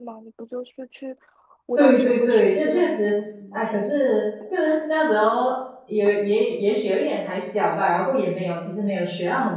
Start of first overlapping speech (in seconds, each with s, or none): 1.8 s